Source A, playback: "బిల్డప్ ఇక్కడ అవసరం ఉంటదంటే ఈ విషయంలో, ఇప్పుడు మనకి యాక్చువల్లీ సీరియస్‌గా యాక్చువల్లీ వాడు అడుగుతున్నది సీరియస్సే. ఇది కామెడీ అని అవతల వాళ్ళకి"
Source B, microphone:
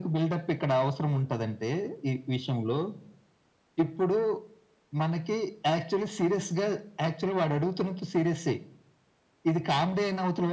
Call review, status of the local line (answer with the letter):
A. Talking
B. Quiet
B